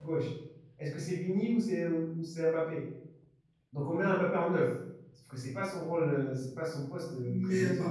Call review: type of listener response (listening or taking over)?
taking over